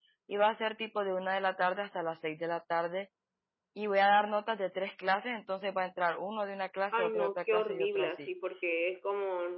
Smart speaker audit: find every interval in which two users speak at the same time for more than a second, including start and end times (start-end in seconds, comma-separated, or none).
6.9-8.3